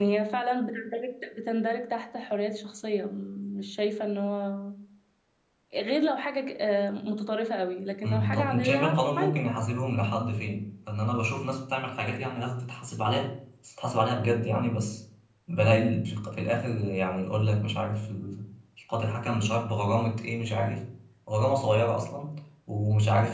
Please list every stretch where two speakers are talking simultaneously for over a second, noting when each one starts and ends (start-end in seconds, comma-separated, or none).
8.0-9.4